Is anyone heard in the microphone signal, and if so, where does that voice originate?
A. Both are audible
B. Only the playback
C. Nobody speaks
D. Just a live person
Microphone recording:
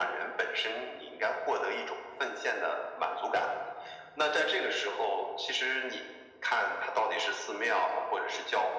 B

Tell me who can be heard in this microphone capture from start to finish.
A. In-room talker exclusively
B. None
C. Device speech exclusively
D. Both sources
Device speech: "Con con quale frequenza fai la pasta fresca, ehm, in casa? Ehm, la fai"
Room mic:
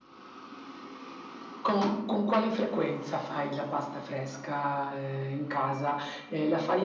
C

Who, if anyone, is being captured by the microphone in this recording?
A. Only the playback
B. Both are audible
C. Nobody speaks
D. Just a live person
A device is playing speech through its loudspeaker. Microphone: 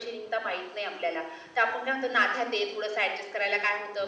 A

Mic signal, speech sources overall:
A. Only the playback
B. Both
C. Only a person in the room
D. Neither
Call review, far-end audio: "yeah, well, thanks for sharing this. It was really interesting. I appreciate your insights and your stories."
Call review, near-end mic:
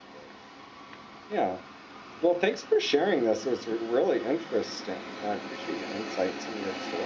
A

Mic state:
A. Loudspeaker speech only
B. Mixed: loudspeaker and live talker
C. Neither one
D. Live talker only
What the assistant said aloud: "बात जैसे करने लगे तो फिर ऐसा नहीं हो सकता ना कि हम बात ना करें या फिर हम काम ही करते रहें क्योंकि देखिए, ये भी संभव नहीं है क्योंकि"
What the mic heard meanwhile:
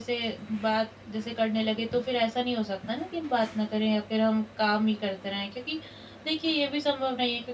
A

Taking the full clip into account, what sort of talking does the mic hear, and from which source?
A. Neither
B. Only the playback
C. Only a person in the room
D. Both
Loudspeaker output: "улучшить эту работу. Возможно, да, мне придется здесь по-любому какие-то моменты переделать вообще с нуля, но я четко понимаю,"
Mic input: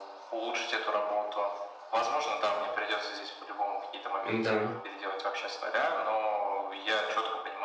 D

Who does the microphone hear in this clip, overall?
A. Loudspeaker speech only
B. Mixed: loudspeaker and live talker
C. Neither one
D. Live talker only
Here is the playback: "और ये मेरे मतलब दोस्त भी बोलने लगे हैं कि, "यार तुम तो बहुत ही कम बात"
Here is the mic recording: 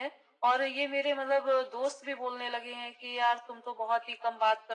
A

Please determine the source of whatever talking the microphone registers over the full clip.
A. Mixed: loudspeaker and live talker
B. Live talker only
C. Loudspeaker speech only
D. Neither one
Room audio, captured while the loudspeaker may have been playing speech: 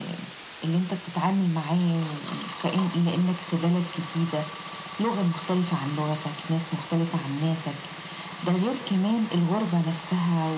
C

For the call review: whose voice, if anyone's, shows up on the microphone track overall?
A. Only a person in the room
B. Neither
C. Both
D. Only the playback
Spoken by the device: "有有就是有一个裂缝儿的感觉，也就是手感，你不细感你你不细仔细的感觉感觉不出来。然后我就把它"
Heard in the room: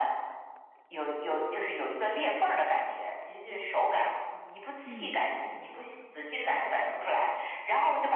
C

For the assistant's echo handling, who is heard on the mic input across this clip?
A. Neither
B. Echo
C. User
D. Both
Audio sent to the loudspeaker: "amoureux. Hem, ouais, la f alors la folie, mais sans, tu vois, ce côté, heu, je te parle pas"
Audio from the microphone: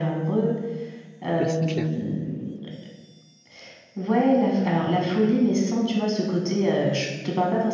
D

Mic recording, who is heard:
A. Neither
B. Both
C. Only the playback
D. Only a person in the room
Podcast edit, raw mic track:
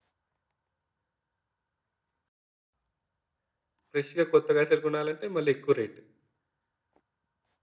D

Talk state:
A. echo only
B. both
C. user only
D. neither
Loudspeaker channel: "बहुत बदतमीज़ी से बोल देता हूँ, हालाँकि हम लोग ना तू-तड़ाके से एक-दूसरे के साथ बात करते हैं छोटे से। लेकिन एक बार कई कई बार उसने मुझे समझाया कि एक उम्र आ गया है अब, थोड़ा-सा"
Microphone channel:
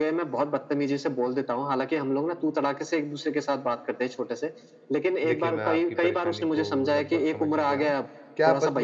B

